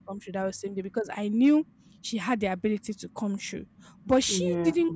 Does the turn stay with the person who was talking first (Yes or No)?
Yes